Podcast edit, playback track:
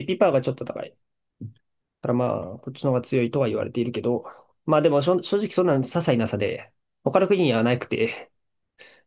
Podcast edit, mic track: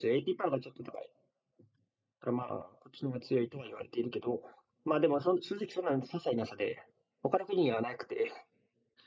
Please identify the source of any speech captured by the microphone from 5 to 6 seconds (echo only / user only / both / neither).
echo only